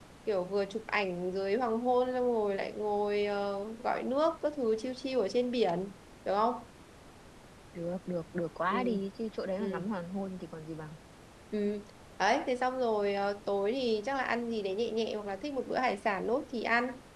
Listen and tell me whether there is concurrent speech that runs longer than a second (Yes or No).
No